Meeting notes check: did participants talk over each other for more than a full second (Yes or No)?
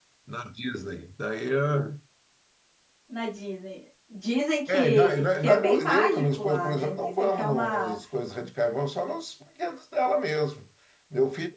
Yes